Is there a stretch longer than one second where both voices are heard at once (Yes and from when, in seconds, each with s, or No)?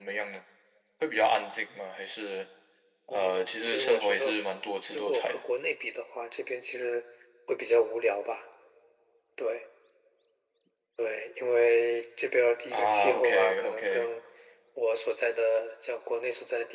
Yes, from 3.1 s